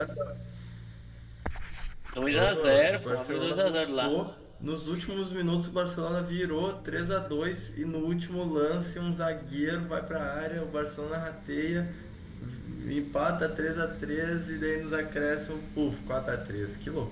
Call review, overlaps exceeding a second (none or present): present